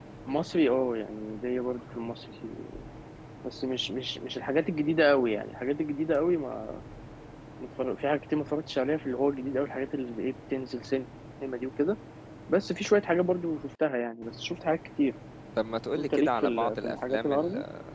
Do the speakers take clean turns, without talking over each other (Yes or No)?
No